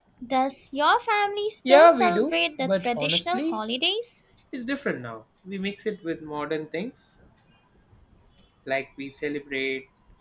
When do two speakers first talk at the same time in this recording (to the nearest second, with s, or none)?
2 s